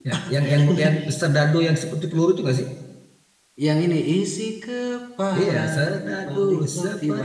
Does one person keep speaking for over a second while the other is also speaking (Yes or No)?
Yes